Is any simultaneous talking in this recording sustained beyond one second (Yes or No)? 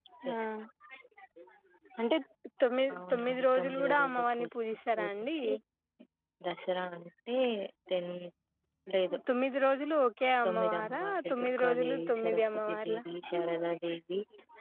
Yes